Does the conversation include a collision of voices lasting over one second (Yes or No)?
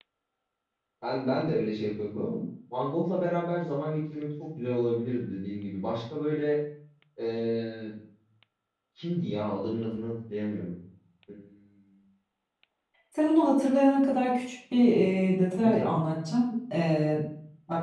No